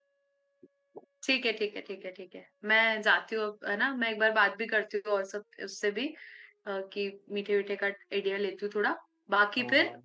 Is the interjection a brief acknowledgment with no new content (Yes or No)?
Yes